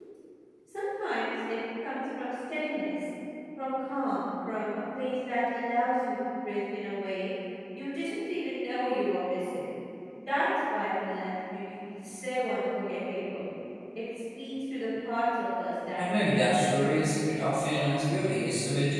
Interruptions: present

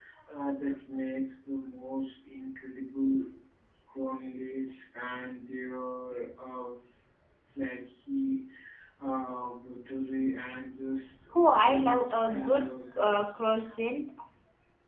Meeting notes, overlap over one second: present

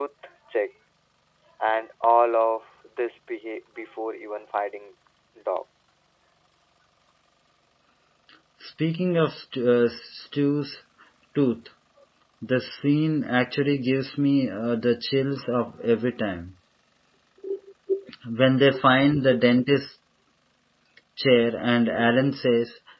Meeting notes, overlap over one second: none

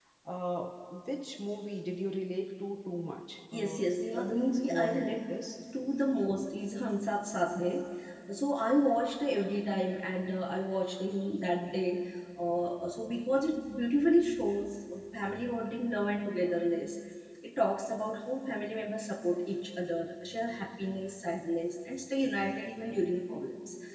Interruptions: present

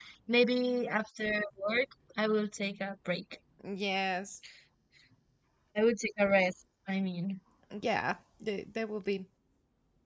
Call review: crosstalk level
none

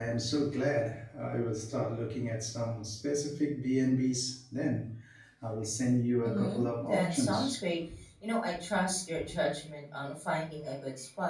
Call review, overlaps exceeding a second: present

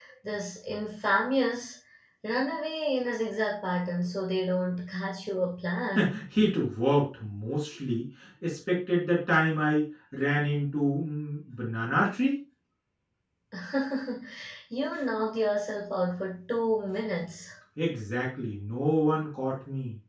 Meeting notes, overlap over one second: none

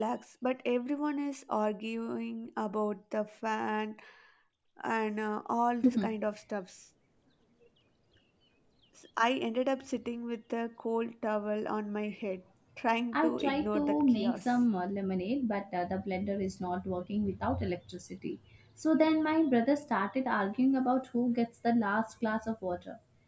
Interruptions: present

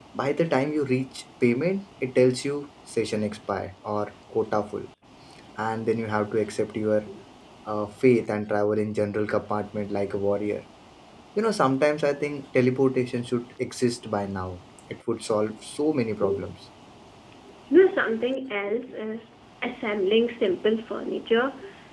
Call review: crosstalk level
none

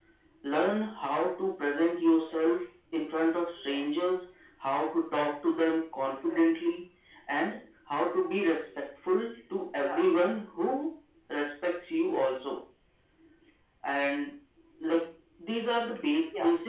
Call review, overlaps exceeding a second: none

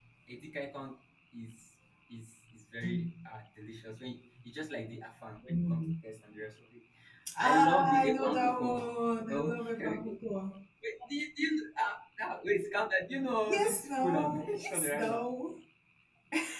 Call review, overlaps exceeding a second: present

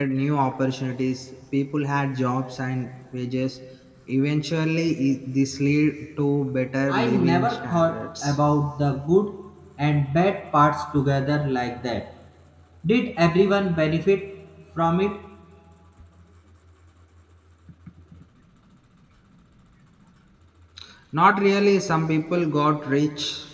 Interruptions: present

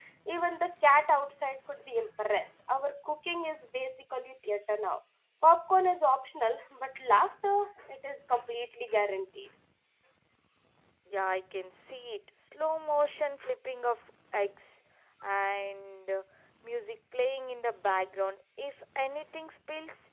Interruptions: none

